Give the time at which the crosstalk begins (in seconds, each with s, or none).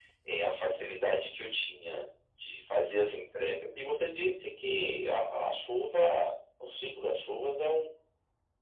none